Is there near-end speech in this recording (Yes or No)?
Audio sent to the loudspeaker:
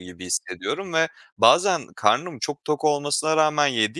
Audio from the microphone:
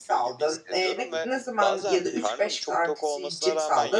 Yes